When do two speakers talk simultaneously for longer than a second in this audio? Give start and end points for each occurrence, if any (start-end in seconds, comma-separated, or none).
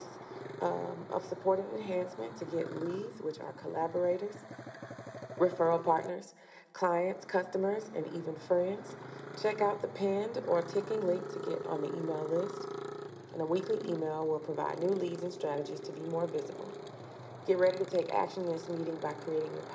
none